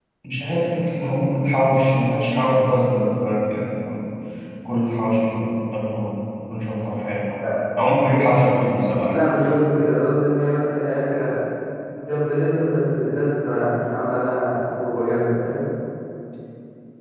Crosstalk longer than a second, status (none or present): none